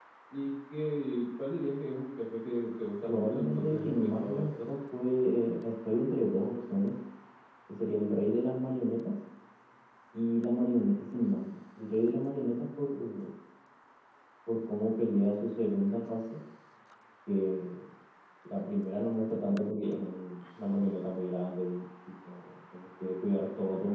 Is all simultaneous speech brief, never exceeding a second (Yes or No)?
No